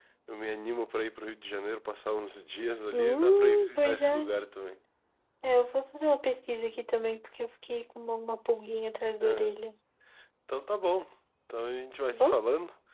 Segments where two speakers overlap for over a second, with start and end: 2.9-4.1

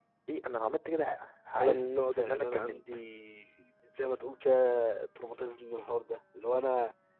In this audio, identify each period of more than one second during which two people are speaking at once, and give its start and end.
1.6-2.8

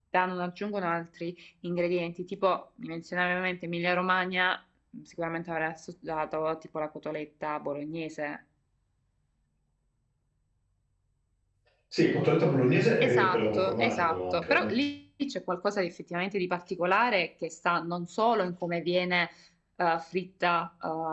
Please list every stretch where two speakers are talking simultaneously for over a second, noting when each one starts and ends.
13.0-14.7

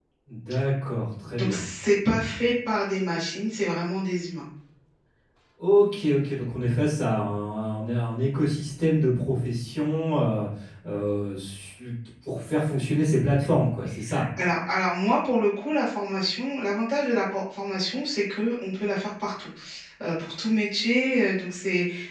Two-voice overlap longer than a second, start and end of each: none

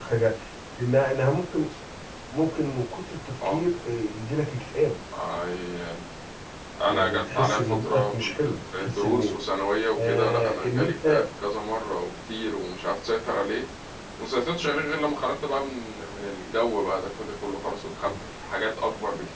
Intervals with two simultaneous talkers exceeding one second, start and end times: 6.9-9.3, 10.0-11.2

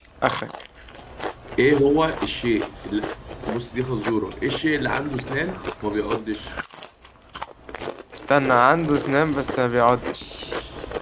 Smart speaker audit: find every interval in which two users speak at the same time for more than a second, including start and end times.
none

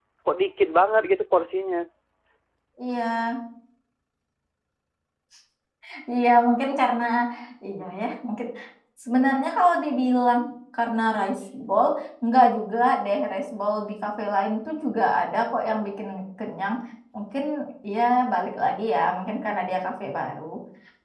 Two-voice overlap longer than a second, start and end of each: none

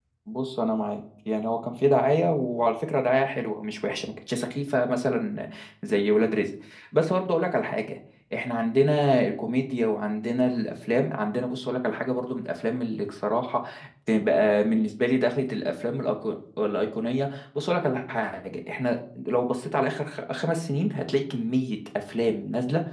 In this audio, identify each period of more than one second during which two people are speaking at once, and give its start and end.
none

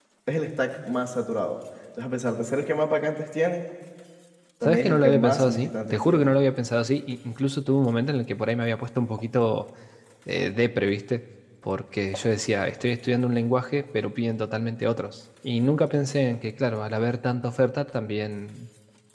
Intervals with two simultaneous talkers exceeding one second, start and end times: 4.6-6.3

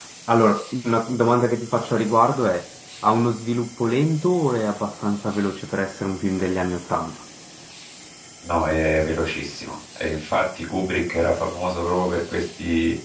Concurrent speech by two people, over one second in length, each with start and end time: none

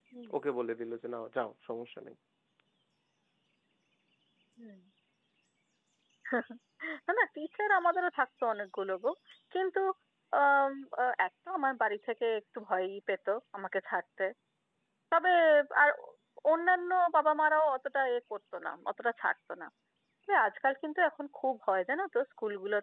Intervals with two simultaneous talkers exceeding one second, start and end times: none

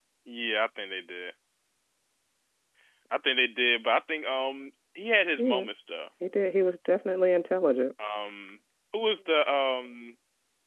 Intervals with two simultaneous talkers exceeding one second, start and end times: none

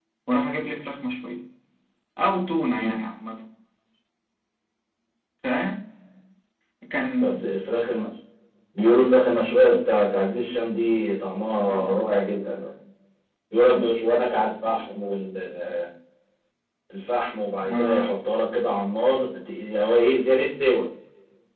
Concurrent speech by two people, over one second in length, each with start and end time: none

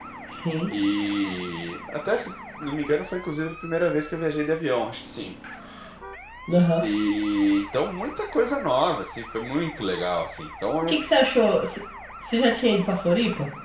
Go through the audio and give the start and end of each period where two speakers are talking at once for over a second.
none

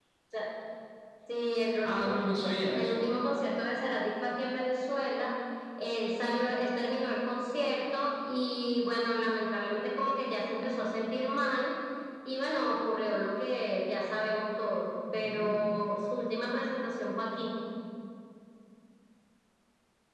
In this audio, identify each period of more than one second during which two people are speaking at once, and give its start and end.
none

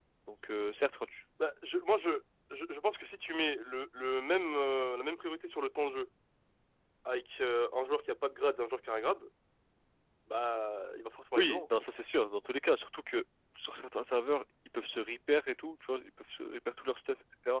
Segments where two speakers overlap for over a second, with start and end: none

